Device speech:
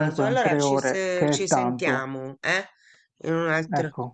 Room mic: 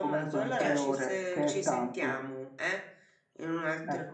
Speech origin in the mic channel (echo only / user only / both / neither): both